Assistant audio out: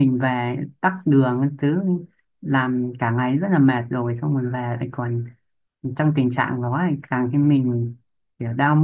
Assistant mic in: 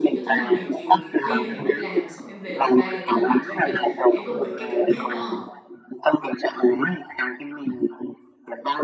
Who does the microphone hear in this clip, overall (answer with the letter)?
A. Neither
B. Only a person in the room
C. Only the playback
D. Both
D